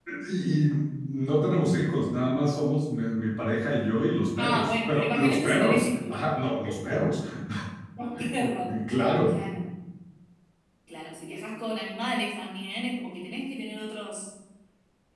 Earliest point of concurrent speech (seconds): 4.4 s

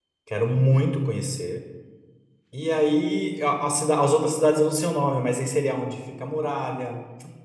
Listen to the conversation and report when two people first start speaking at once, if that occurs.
none

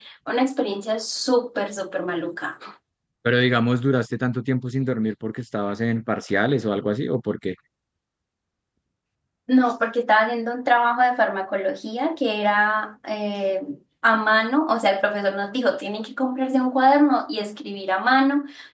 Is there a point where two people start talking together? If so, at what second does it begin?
none

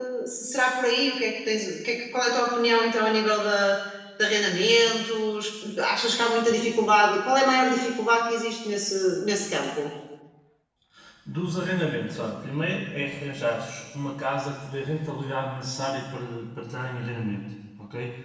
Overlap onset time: none

